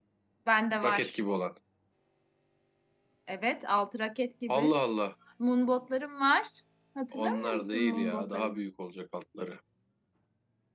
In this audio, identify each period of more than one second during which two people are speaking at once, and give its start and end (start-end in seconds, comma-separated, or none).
7.1-8.6